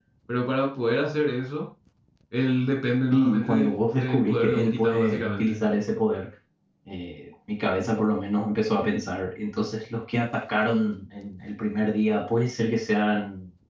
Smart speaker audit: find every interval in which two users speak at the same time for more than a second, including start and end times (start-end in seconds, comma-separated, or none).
3.1-5.6